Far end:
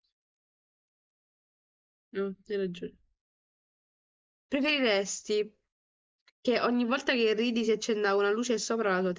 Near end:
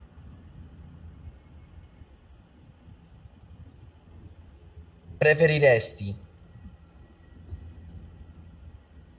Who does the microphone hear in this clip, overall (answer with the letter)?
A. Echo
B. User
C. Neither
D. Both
B